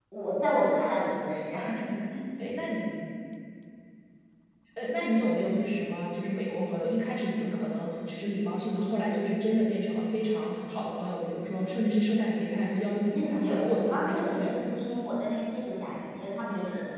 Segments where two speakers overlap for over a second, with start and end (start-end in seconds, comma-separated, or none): 13.1-14.8